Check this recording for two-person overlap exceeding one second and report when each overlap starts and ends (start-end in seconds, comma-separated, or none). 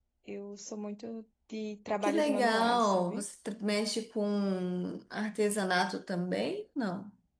2.0-3.2